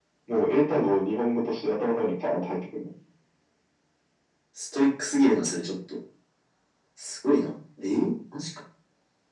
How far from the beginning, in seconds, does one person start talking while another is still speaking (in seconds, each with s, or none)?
none